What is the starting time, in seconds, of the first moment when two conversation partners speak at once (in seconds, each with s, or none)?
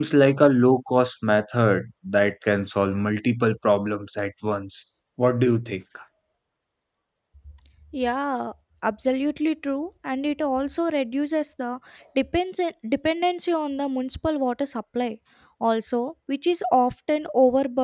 none